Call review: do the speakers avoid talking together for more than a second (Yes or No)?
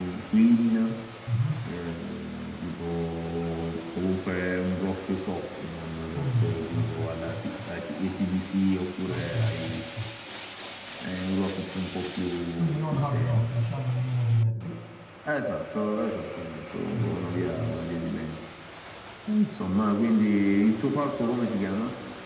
No